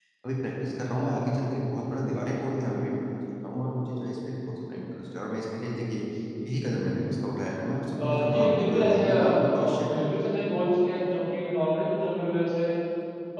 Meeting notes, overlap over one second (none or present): present